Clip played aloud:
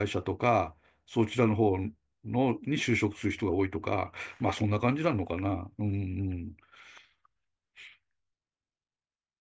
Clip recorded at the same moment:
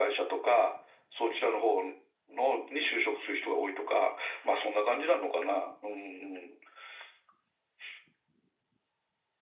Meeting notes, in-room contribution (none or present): none